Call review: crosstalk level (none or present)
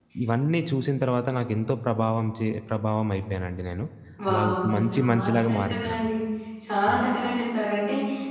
present